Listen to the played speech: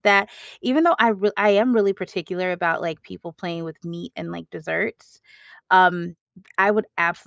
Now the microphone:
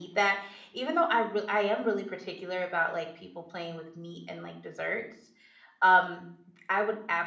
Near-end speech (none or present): none